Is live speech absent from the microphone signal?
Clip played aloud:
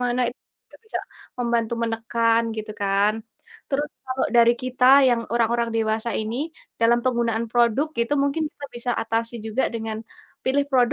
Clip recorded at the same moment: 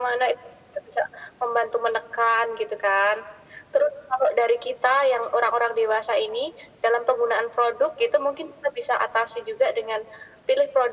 Yes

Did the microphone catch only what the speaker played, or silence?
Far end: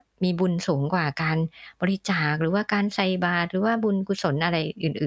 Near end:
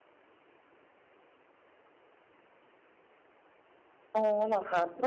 No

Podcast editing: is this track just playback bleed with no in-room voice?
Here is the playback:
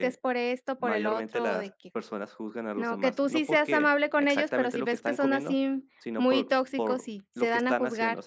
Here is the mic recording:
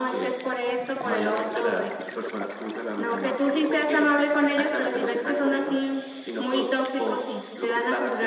Yes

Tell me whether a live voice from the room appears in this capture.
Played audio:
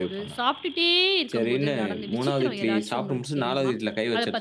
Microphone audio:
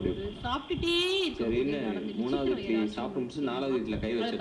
No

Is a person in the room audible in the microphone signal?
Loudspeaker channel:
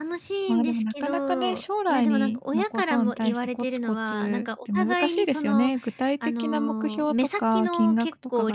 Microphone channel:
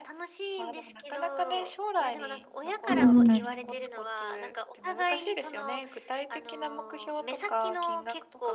Yes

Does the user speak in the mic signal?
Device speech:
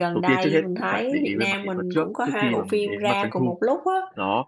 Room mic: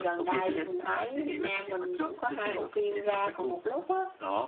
No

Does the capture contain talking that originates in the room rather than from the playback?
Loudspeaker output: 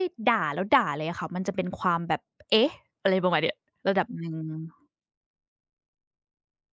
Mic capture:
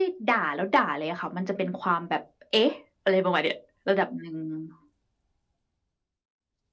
No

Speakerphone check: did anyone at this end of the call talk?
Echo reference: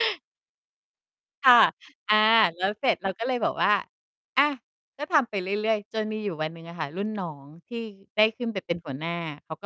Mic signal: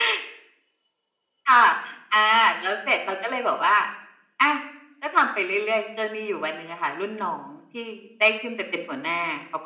No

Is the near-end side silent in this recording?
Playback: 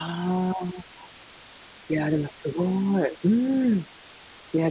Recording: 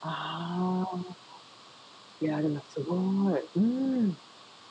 Yes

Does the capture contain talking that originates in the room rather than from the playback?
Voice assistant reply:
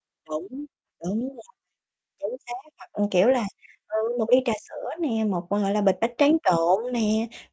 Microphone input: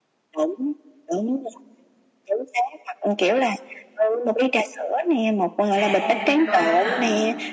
Yes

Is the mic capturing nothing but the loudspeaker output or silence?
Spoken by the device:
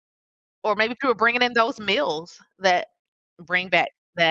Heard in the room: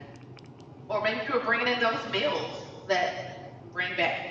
Yes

